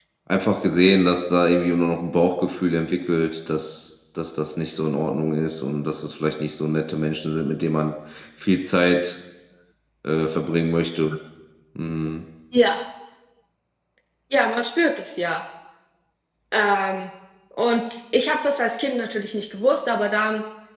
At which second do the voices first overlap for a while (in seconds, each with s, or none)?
none